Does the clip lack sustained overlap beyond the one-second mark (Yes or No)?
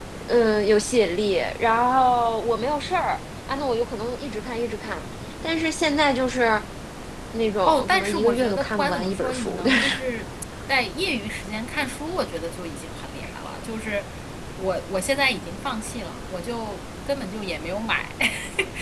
No